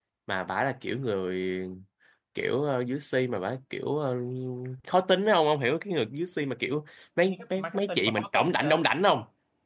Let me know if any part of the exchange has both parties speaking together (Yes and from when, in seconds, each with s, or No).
Yes, from 7.3 s